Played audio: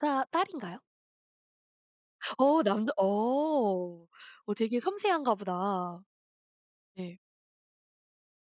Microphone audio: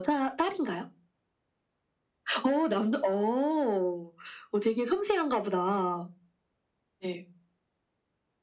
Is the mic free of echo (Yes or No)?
No